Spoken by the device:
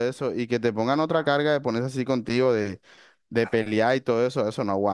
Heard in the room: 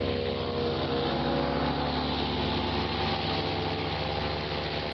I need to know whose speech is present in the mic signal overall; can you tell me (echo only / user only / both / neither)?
neither